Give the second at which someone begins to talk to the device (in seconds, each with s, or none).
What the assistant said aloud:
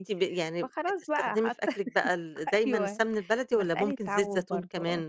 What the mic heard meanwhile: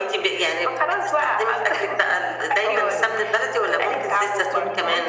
1.7 s